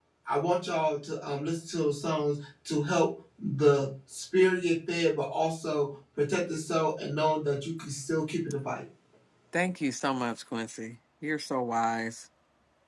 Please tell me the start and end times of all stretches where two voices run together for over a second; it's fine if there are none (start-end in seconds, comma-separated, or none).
none